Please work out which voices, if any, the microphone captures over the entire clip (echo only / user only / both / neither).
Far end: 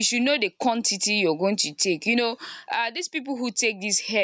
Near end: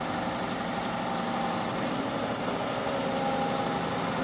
neither